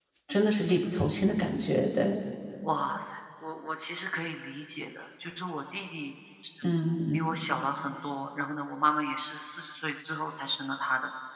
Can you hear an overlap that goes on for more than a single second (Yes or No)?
No